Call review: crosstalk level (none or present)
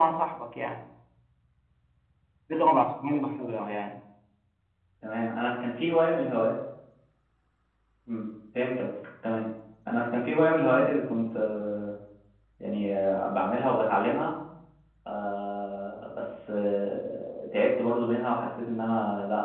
none